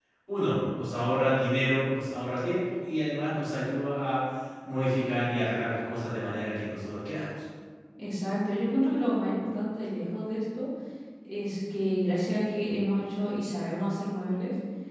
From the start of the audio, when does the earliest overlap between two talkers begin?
none

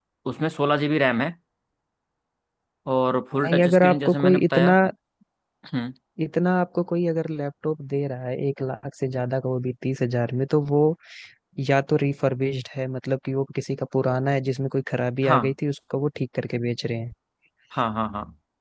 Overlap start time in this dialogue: 3.3 s

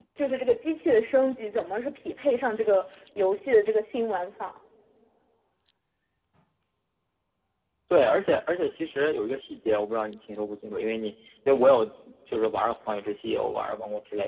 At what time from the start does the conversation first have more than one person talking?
none

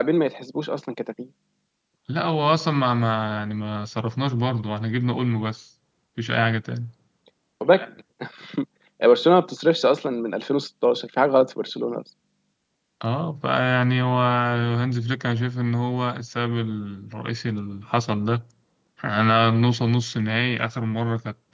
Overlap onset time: none

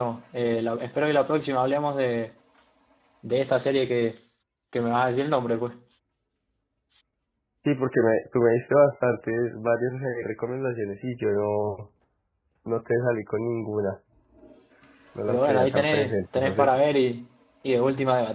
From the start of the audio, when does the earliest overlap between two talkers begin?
15.3 s

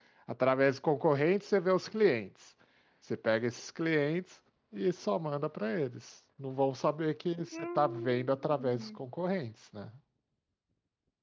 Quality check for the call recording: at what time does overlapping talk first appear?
7.5 s

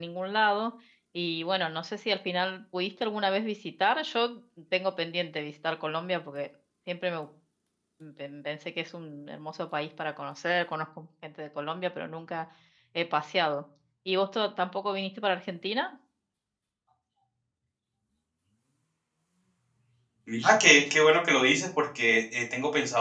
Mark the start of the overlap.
none

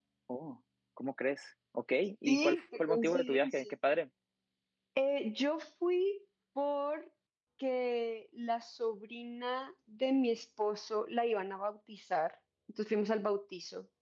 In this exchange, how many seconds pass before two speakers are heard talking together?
2.2 s

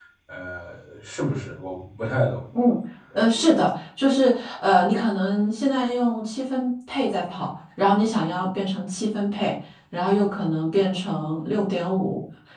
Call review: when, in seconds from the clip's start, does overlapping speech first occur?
none

